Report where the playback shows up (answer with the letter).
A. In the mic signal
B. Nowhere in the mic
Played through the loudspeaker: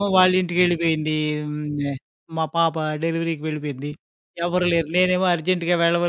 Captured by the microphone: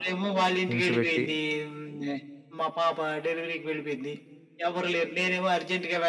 A